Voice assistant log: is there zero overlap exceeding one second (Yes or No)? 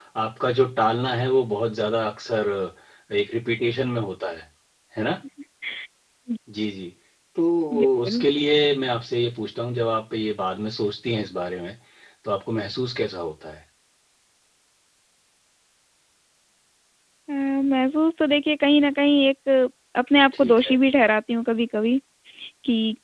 Yes